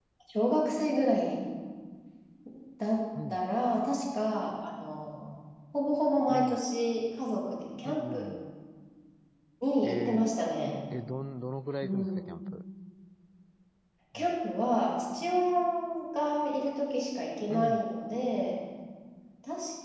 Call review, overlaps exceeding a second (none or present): none